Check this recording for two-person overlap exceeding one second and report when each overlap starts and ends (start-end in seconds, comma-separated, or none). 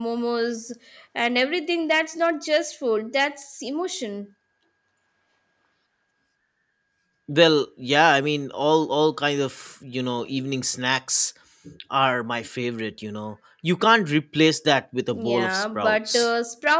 15.1-16.3